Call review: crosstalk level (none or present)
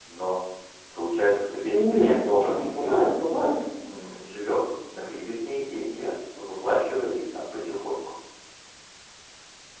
present